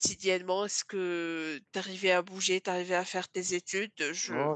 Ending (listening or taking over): taking over